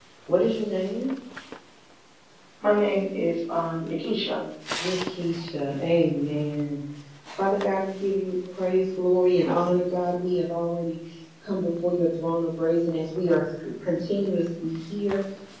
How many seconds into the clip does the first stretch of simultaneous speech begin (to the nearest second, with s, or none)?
none